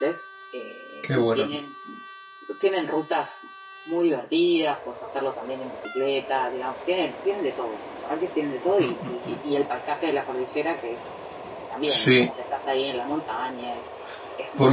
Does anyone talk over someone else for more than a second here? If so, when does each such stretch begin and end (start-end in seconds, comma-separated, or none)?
none